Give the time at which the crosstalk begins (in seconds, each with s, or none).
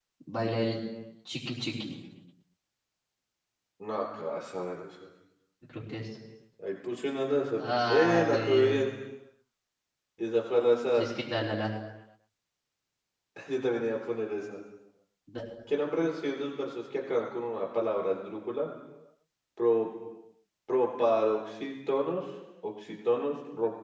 7.6 s